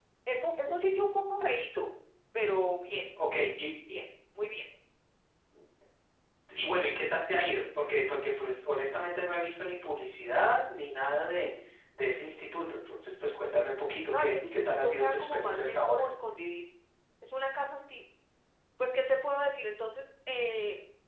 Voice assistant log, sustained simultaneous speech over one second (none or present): present